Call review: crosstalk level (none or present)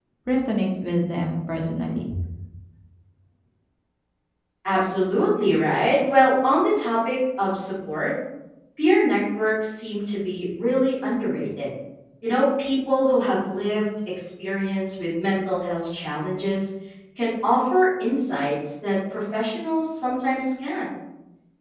none